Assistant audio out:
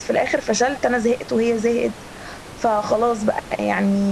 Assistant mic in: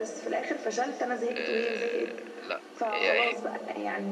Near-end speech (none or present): present